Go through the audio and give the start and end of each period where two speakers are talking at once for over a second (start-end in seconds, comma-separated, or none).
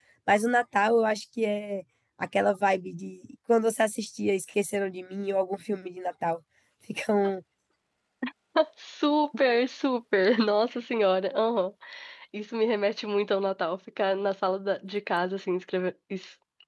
none